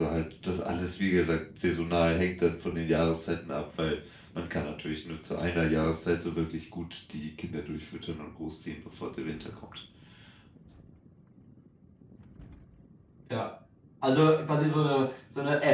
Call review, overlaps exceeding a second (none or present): none